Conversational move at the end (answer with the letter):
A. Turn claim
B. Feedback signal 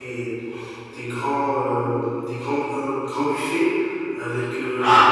B